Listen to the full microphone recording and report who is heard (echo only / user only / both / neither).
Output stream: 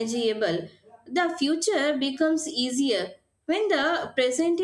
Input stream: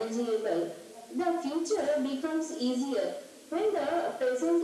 echo only